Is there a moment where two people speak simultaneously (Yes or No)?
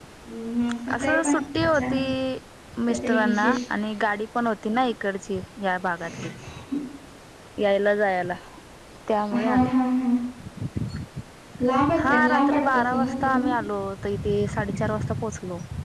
Yes